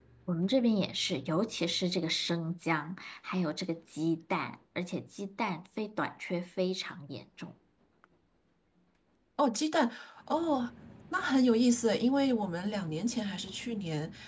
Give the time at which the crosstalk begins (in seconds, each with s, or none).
none